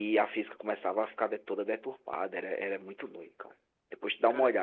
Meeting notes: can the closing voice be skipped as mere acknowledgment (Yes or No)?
No